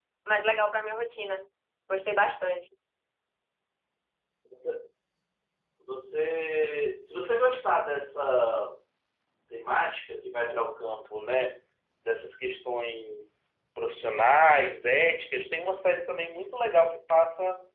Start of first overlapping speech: none

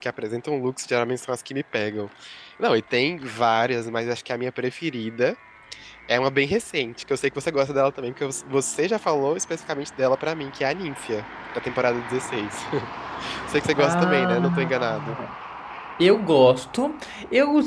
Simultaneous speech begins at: 13.8 s

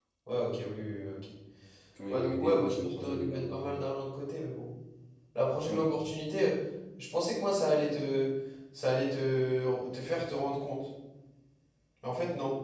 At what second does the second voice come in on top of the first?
2.1 s

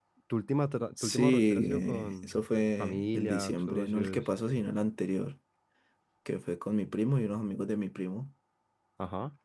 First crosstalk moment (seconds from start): 1.0 s

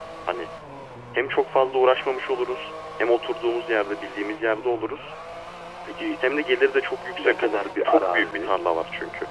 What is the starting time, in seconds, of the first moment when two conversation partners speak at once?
7.2 s

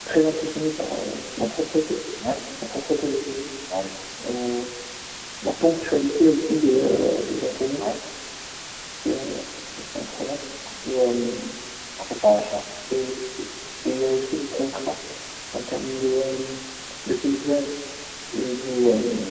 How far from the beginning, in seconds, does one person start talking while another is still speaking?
none

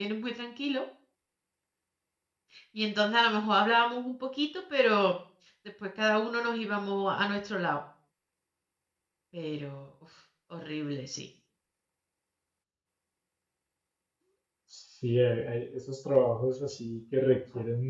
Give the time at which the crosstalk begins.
none

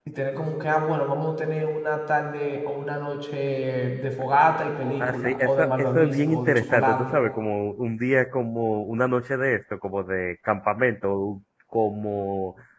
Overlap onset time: 5.0 s

